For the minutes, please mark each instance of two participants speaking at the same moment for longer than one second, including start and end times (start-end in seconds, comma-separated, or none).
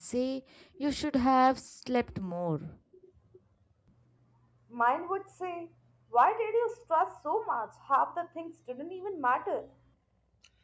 none